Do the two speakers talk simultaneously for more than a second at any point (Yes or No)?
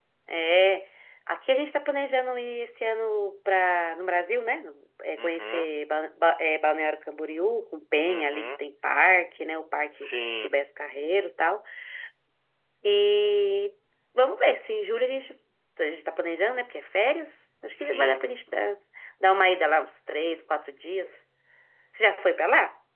No